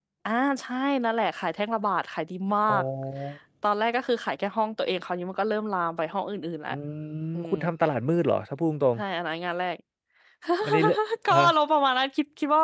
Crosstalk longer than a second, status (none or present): none